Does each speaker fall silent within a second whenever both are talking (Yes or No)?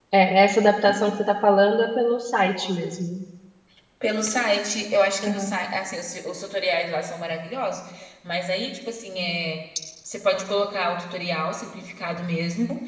Yes